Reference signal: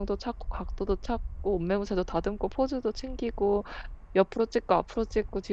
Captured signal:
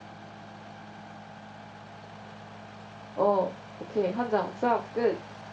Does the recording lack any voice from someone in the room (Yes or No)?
No